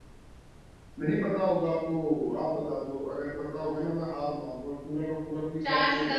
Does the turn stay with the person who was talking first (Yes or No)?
No